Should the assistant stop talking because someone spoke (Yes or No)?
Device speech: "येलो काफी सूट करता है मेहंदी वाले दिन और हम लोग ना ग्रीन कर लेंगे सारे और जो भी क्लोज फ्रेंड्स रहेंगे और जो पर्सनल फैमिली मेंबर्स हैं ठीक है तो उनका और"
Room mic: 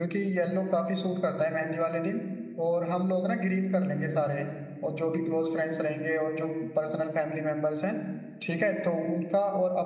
No